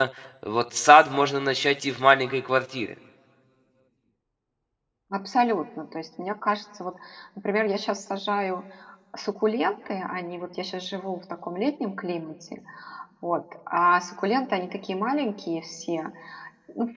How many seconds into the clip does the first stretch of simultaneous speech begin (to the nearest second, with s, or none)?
none